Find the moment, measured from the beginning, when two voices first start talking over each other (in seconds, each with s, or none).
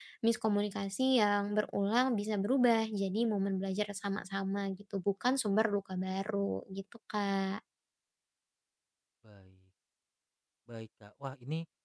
none